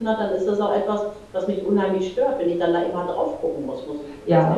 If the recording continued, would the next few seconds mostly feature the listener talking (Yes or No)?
Yes